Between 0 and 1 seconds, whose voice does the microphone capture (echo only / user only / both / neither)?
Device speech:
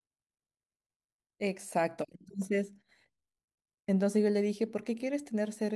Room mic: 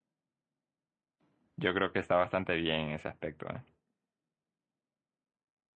neither